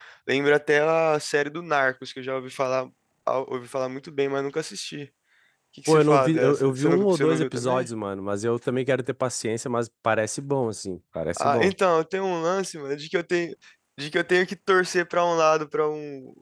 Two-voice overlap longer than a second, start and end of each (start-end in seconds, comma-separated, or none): 5.9-7.9